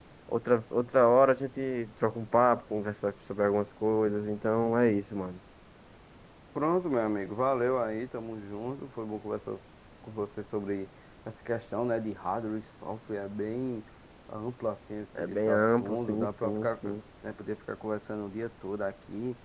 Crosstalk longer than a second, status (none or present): present